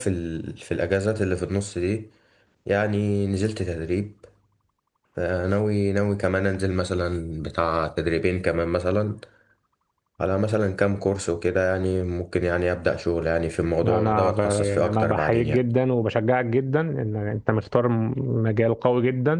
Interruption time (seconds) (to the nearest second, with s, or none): 14 s